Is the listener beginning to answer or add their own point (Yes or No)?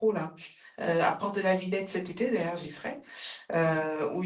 No